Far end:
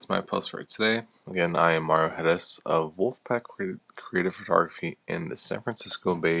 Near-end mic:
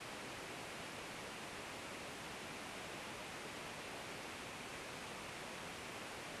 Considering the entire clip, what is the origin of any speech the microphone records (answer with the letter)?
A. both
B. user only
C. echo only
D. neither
D